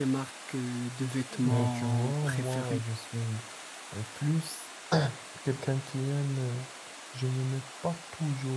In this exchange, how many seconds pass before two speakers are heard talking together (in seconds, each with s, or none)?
1.3 s